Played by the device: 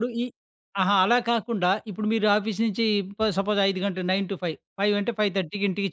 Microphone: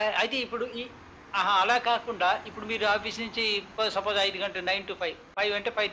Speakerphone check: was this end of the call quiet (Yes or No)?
Yes